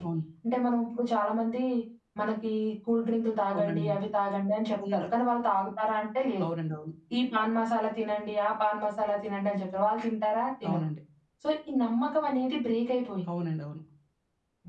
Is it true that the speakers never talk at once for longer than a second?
Yes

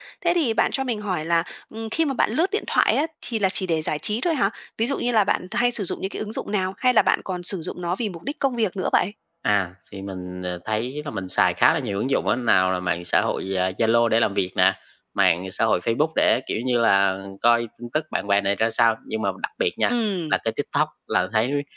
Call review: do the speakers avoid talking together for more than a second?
Yes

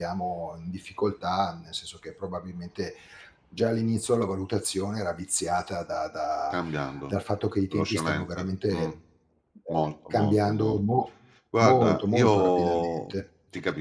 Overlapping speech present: Yes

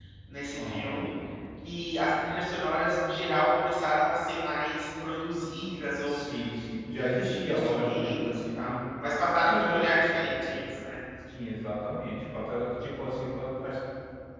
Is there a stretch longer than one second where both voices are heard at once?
Yes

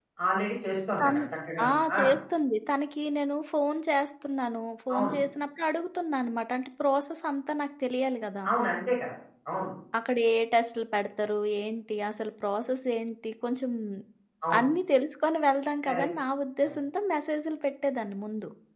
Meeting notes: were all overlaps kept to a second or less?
Yes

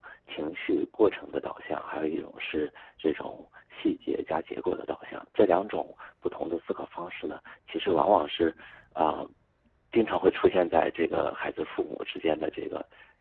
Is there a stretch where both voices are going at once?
No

